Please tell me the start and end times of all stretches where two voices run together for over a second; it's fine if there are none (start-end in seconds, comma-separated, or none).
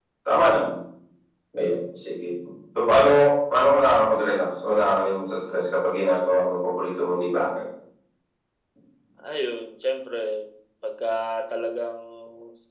none